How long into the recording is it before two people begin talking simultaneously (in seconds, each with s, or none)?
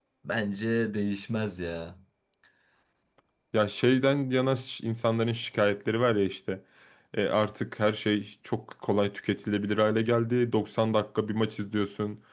none